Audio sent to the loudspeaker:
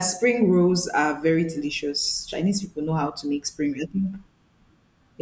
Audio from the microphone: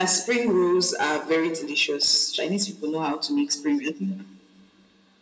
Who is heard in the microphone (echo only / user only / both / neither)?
echo only